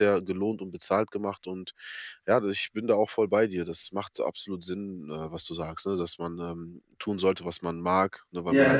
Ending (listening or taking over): listening